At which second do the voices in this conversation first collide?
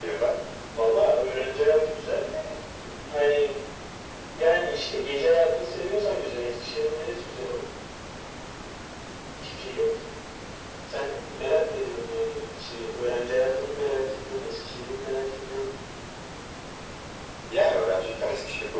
none

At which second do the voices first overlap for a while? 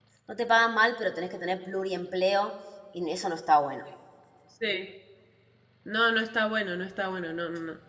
none

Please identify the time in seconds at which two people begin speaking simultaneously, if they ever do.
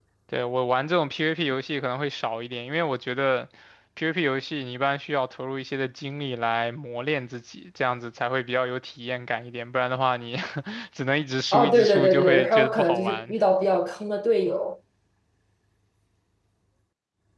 11.5 s

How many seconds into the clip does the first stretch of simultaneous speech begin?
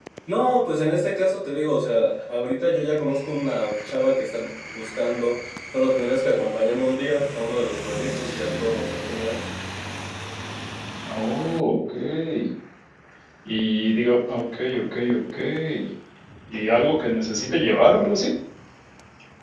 none

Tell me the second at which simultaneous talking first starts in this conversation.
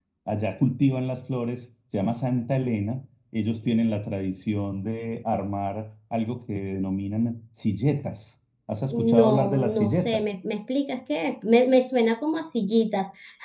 8.9 s

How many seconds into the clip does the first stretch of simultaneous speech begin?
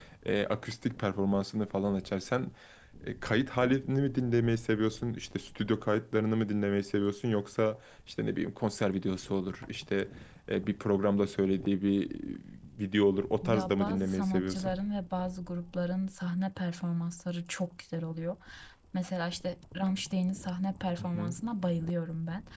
13.4 s

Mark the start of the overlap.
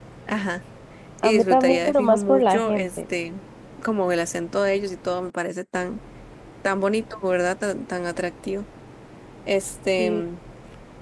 1.2 s

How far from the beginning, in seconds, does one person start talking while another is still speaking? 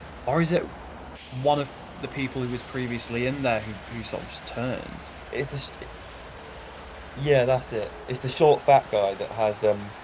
none

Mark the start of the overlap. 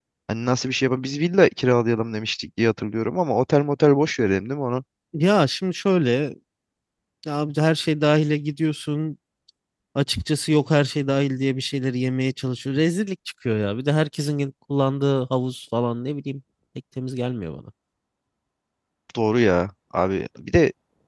none

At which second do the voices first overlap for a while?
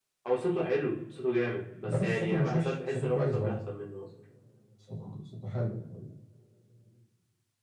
1.8 s

